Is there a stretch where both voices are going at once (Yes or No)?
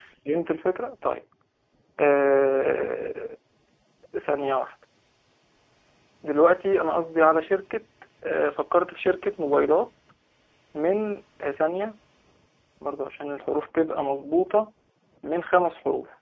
No